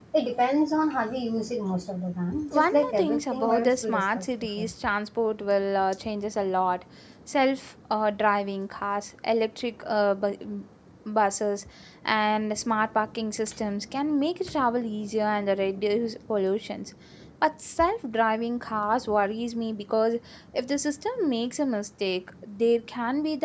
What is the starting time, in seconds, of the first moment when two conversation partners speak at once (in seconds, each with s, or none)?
2.3 s